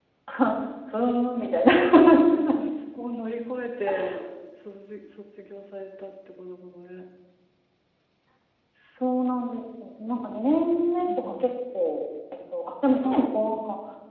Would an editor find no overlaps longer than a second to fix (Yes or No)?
Yes